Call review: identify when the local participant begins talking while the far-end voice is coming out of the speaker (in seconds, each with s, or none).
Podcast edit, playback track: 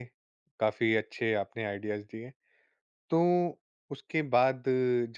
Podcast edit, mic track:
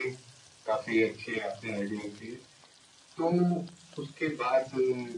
none